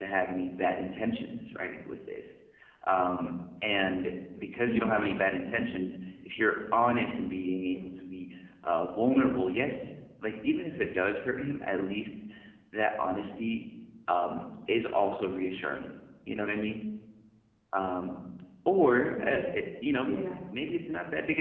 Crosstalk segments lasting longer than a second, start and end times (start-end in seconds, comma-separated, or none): 4.6-5.9